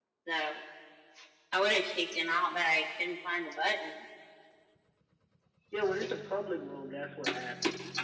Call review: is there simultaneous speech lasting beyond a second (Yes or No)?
No